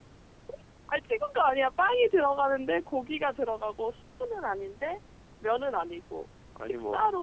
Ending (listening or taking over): listening